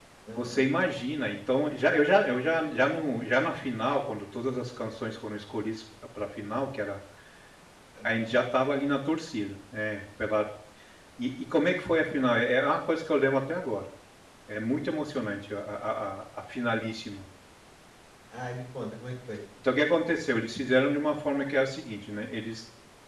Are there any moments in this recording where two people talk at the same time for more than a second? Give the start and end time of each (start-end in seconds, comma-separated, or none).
none